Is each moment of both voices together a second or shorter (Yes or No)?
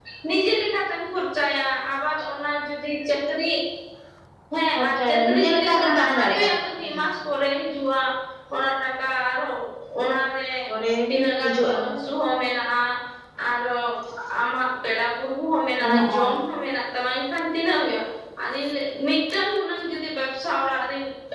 No